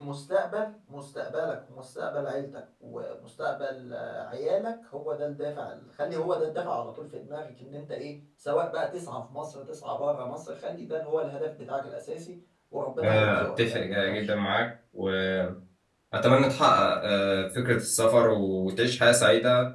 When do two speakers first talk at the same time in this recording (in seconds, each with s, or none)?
13.0 s